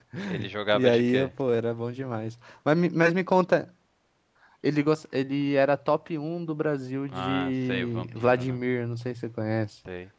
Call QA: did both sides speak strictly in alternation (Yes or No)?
No